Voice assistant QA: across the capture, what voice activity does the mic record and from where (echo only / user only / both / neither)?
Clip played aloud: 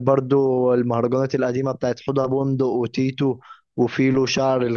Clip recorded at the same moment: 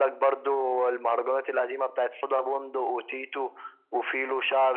echo only